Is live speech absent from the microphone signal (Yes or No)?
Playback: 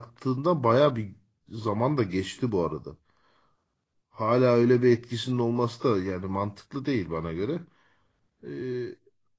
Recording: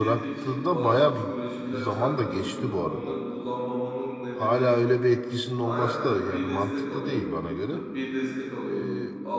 No